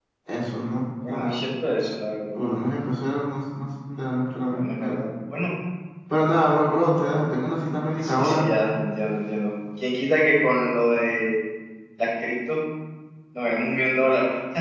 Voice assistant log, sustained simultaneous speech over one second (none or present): none